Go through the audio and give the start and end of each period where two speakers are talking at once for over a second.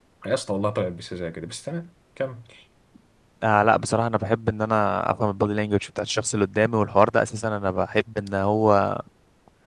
none

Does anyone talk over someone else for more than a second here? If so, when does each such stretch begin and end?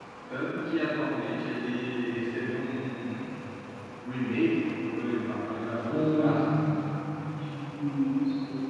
none

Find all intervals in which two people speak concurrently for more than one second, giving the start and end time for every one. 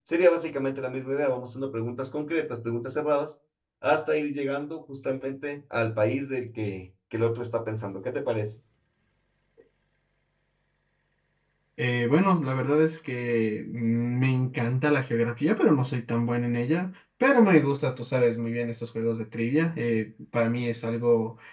none

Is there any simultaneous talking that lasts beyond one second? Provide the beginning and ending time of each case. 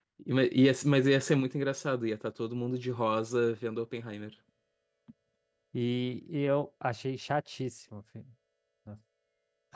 none

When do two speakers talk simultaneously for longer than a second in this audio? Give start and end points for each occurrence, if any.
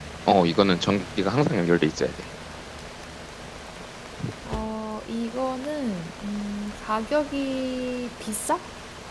none

